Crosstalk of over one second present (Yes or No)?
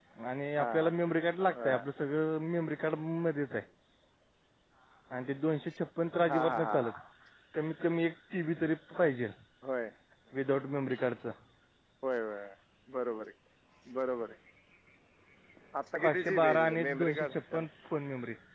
Yes